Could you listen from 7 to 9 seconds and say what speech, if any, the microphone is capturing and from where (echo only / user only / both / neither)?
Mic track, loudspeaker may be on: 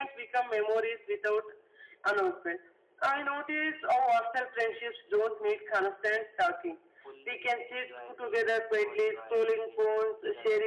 both